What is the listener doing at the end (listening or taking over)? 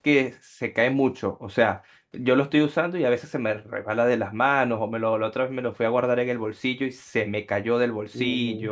taking over